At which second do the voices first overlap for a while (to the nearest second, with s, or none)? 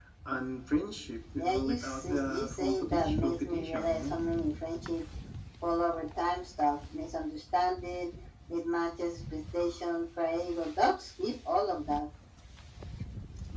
1 s